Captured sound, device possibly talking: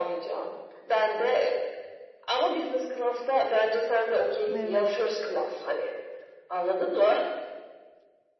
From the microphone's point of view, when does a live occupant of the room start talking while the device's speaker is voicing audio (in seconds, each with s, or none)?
4.5 s